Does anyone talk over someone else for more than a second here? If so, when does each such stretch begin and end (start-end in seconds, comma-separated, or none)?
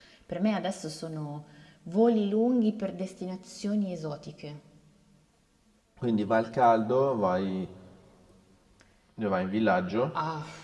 none